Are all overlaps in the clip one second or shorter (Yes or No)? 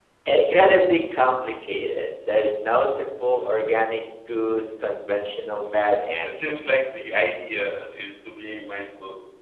Yes